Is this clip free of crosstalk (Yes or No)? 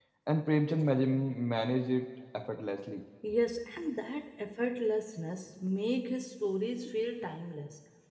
Yes